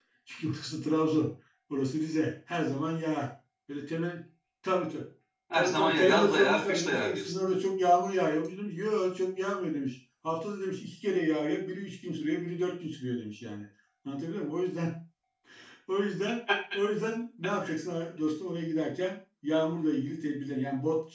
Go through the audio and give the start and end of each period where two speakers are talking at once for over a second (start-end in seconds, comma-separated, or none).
5.5-7.3